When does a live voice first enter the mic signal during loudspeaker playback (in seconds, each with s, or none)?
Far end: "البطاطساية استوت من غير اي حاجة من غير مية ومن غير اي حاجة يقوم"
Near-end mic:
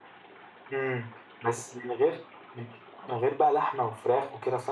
0.7 s